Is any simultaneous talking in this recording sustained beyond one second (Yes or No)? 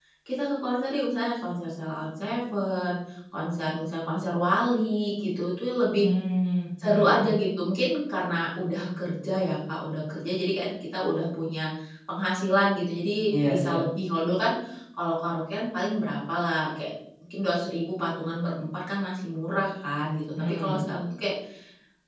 No